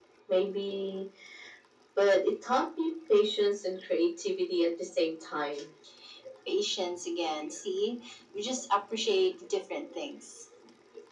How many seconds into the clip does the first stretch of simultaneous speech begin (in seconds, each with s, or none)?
none